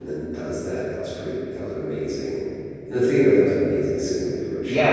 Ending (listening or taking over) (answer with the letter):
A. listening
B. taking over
B